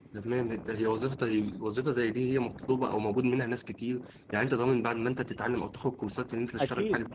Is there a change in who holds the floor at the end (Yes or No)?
Yes